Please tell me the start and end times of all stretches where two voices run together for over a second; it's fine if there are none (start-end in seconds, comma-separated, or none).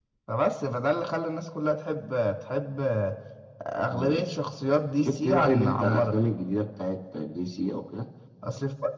5.0-6.2